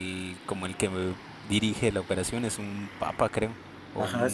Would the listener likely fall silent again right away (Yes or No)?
No